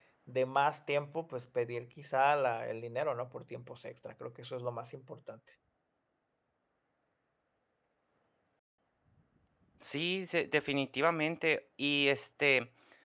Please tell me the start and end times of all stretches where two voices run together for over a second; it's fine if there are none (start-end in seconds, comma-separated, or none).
none